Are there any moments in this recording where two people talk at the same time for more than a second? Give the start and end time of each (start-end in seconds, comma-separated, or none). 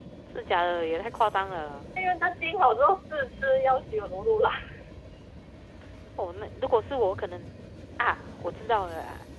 none